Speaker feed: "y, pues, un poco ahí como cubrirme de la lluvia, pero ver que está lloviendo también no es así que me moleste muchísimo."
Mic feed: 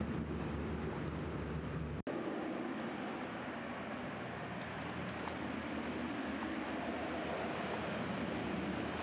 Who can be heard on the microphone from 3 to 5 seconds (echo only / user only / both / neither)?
neither